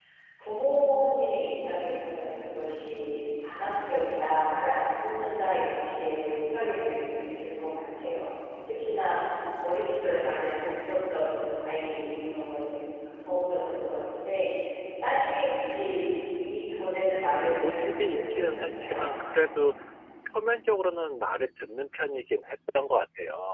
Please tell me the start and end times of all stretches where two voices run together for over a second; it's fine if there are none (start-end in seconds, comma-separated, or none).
17.3-19.1